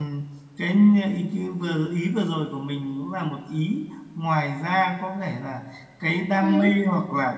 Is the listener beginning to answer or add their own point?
No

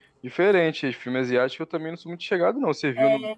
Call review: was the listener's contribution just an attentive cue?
Yes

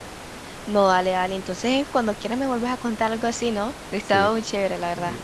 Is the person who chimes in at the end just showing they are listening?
No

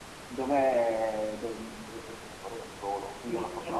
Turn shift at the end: No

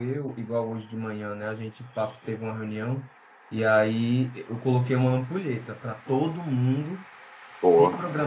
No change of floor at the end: Yes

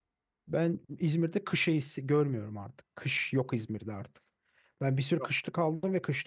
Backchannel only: Yes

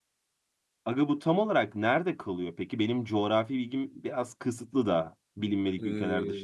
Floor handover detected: Yes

